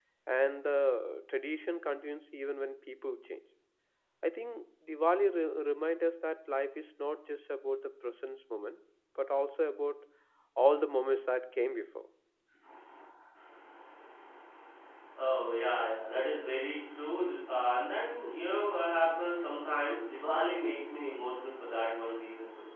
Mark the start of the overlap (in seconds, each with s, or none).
none